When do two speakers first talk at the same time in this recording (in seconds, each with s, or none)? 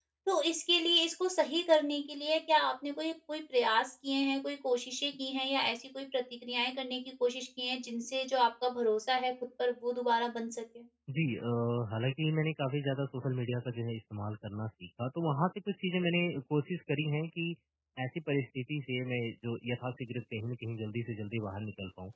none